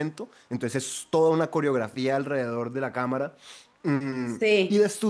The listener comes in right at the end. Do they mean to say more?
No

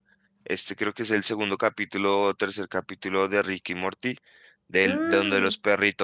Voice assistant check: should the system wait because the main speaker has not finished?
Yes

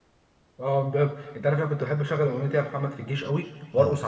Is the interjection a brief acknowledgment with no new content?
Yes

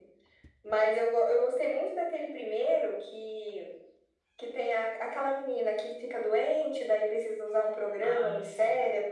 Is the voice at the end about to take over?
No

